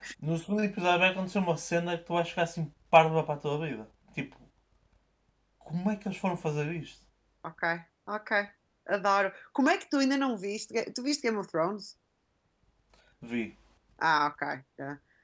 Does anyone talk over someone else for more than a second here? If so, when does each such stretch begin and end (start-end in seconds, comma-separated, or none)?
none